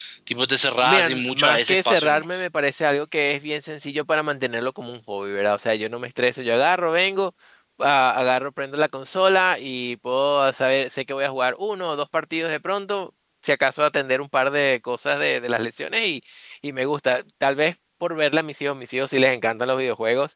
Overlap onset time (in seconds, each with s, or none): 0.8 s